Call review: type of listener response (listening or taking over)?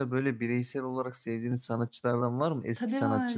taking over